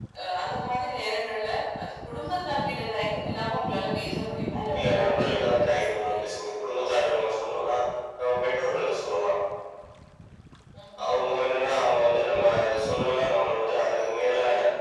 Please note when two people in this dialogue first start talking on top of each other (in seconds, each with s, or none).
4.7 s